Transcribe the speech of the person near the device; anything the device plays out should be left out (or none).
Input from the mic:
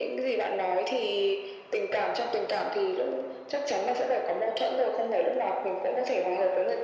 none